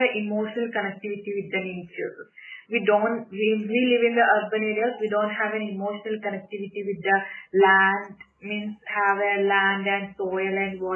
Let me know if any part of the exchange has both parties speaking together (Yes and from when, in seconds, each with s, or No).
No